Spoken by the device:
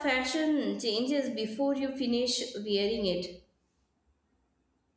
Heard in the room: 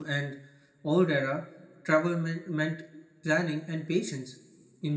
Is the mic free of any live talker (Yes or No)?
No